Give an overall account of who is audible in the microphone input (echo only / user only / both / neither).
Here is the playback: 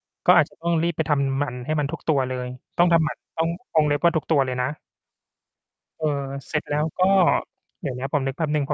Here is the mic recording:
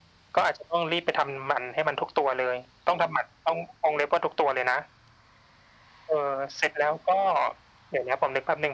echo only